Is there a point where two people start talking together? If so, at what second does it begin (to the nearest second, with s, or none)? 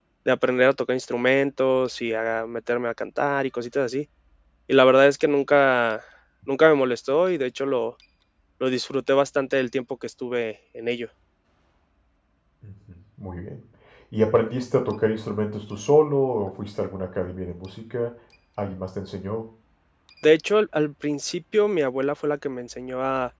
none